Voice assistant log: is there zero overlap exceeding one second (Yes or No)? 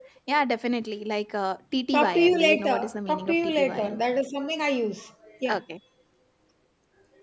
No